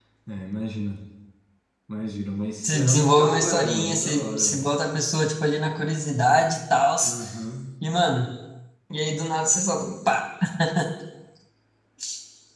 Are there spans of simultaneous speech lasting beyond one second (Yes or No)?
Yes